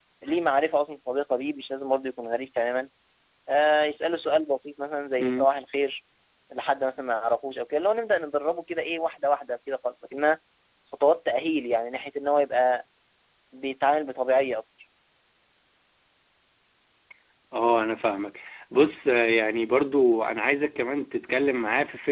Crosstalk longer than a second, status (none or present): none